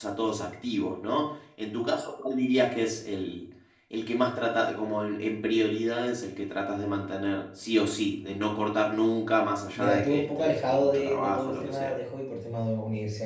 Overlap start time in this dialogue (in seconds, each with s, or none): 9.8 s